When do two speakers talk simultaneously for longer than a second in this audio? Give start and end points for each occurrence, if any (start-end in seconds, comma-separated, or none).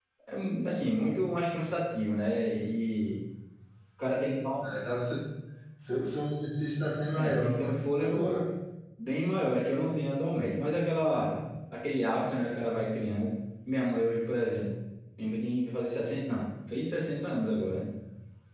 7.2-8.4